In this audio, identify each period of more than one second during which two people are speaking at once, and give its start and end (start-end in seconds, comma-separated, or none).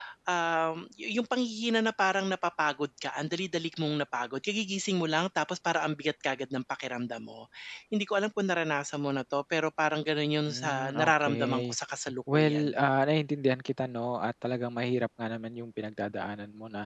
10.5-11.8